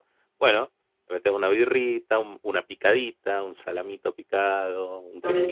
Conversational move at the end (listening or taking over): taking over